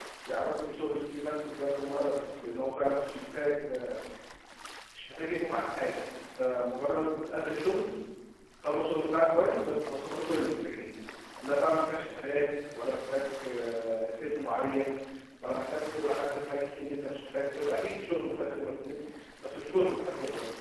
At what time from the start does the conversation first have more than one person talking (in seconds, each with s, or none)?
none